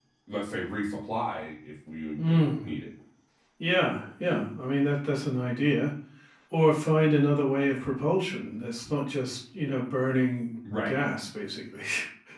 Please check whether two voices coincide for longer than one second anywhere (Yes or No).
No